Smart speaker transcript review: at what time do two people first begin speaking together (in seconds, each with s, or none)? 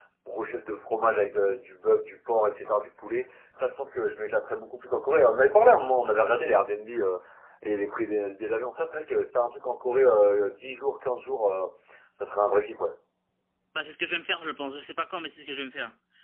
none